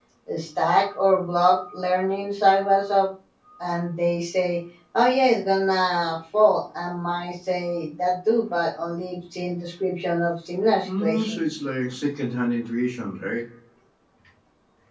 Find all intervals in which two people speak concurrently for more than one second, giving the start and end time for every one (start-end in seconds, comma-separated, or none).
none